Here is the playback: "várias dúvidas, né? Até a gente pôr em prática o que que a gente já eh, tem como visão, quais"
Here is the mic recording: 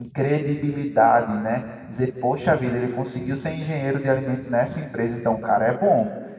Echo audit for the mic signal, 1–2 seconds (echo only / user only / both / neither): user only